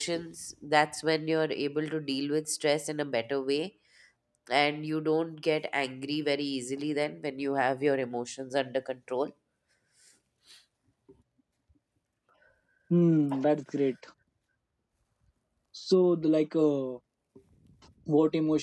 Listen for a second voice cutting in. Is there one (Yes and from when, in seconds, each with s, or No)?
No